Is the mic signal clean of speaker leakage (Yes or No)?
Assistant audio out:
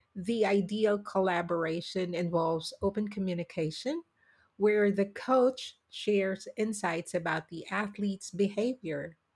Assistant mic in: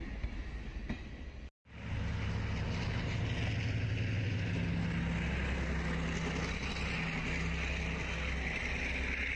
Yes